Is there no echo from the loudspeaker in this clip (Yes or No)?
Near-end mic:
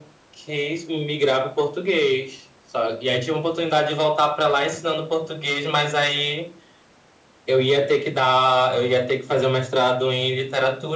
No